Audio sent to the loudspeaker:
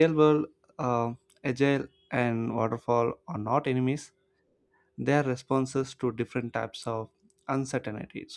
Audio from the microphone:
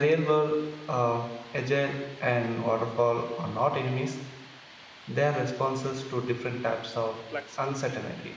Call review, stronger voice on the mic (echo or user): echo